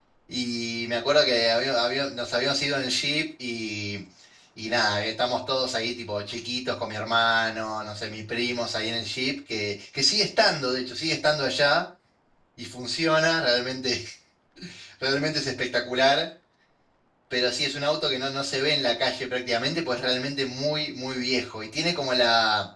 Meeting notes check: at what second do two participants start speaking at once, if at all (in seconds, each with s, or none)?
none